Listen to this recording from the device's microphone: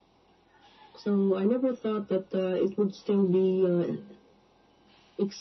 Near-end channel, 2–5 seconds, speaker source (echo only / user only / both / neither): echo only